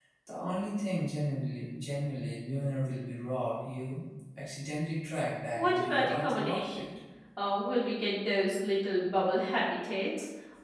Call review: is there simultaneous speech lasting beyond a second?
Yes, from 5.6 s

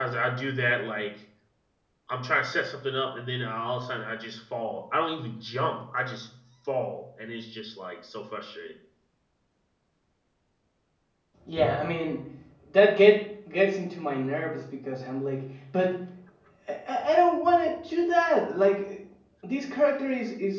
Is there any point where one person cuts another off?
No

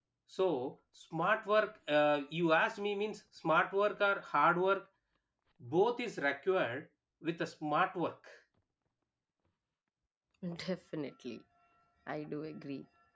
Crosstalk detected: No

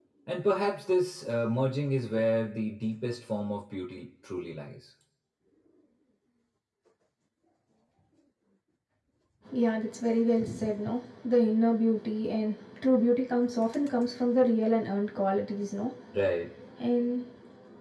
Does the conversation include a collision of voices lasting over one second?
No

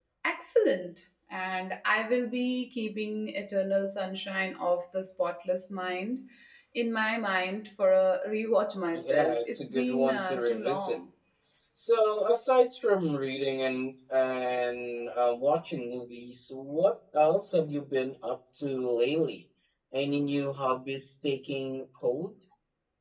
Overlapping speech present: Yes, from 8.9 s

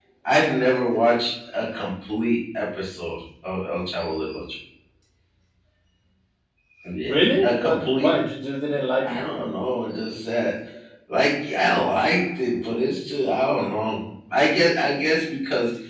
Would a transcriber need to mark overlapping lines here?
Yes, from 7.0 s

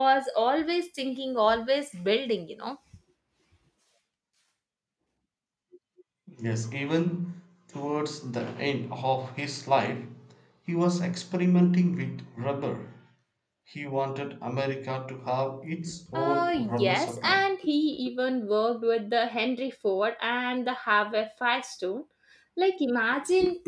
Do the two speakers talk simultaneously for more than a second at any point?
Yes, from 16.1 s

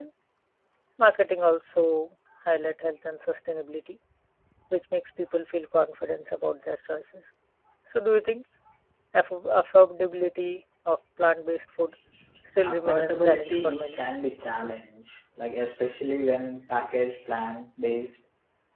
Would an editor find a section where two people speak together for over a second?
Yes, from 12.7 s

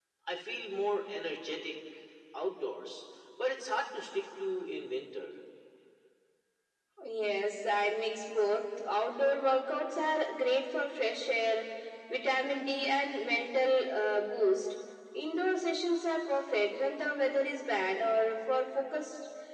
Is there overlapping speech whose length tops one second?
No

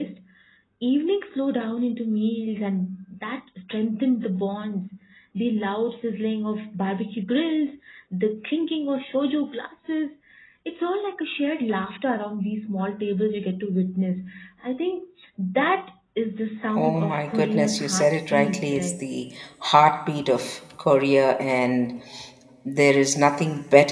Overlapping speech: Yes, from 16.7 s

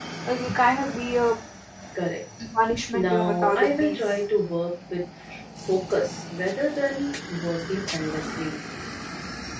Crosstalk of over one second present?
Yes, from 2.9 s

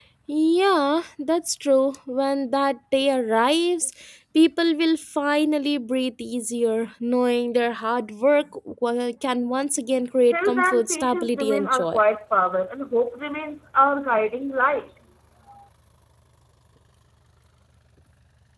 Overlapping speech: Yes, from 10.3 s

